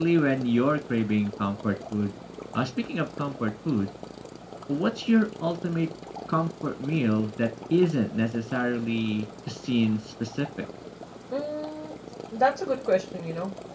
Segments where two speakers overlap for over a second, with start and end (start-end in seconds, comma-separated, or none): none